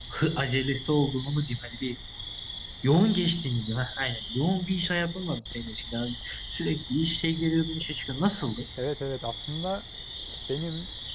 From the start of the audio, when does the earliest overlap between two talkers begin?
none

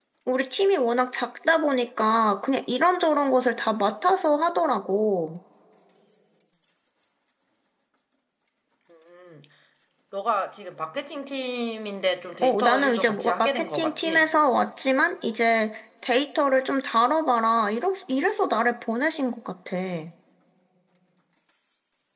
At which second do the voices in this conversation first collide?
12 s

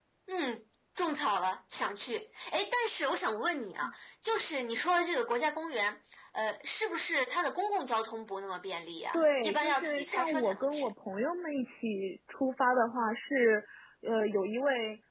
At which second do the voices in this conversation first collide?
9 s

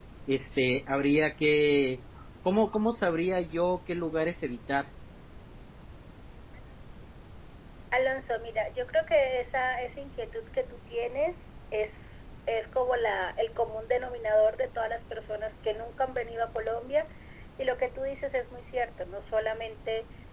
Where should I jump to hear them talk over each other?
none

